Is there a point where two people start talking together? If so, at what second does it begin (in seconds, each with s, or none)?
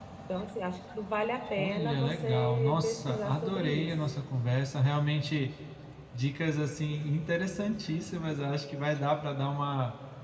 1.6 s